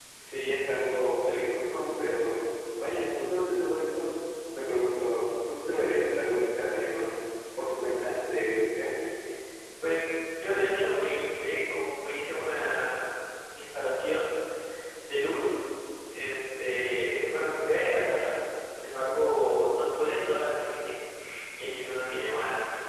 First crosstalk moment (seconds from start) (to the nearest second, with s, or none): none